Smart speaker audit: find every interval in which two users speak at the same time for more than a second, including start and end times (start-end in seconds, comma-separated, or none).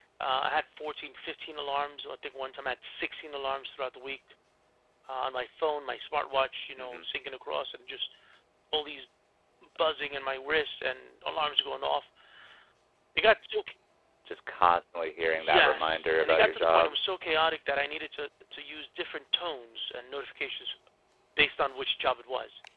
15.4-17.0